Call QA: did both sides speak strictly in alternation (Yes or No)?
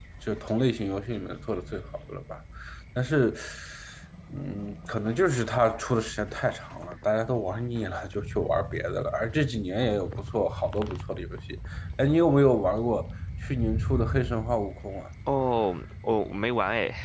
Yes